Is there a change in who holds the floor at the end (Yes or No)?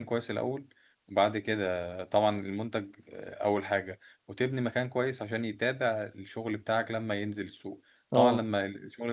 No